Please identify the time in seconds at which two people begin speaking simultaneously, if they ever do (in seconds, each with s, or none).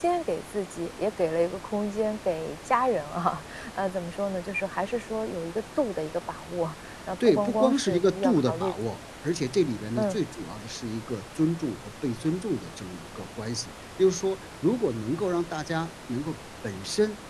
7.2 s